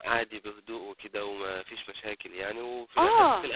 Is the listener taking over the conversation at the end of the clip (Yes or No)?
No